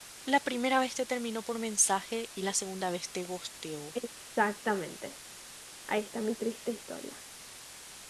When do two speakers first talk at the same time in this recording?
none

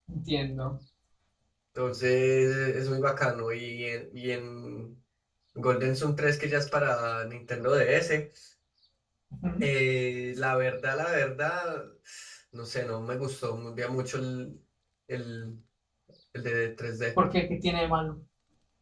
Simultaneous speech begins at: none

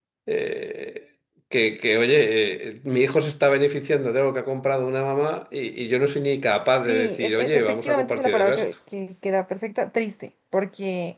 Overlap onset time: 6.8 s

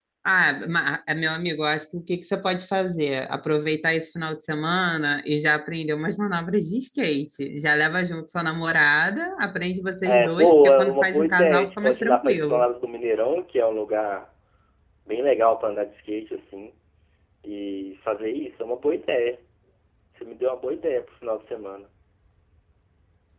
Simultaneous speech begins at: 10.0 s

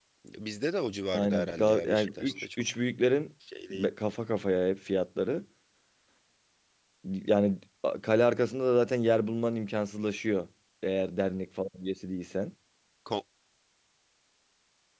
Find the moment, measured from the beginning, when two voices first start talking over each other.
1.1 s

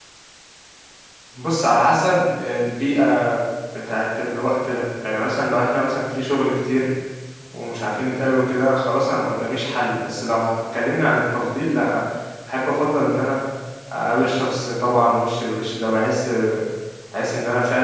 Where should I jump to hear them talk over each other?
none

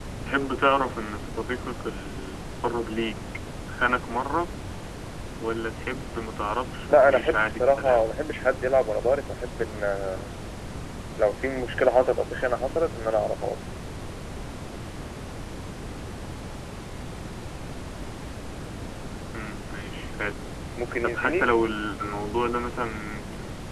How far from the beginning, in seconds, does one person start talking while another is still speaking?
6.9 s

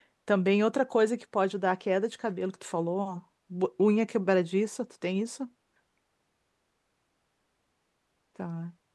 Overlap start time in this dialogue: none

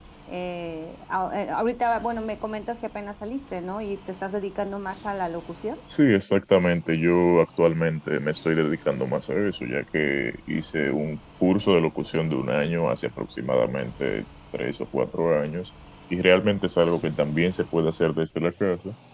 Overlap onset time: none

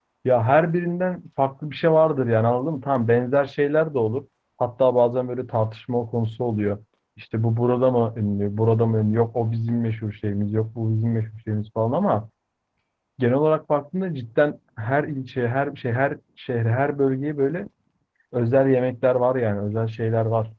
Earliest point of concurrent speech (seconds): none

